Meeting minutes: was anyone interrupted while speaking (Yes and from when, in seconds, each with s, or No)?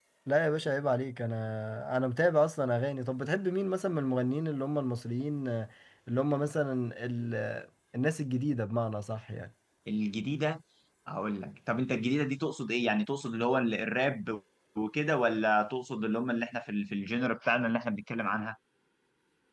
No